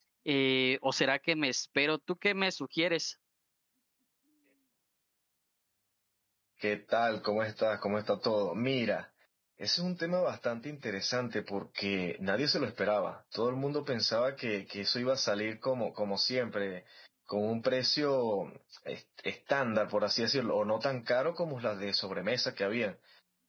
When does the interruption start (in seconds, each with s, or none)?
none